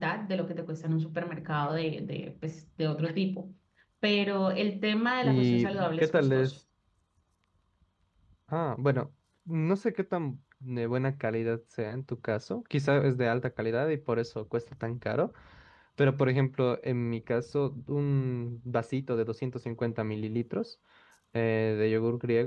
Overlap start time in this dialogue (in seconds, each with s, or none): 5.2 s